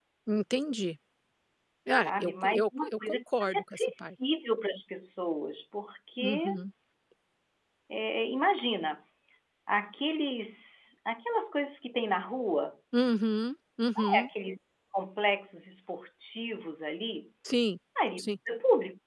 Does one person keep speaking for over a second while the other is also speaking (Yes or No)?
Yes